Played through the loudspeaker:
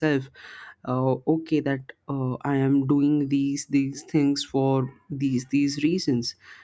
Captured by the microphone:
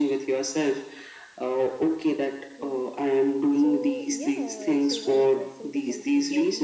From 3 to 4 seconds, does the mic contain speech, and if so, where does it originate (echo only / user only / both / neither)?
both